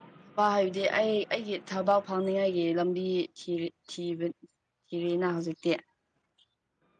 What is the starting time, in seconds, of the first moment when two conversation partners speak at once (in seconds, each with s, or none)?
none